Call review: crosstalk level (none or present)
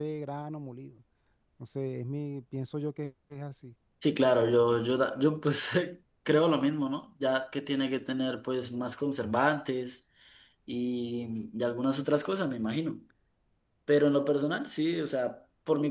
none